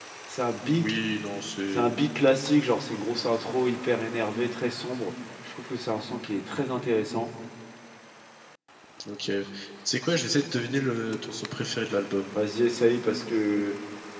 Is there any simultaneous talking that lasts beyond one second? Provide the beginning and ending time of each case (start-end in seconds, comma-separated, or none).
none